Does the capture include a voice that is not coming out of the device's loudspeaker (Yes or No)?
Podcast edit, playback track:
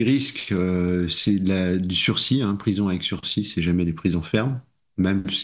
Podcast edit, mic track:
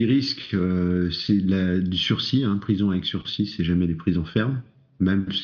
No